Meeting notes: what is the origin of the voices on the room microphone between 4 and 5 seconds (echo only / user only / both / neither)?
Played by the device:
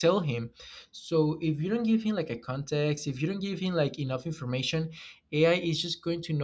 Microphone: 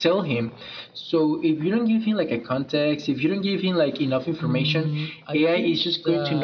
both